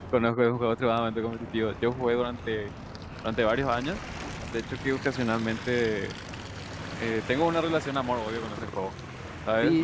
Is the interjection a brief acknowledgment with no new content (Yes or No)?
No